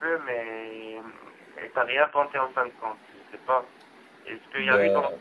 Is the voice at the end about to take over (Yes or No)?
No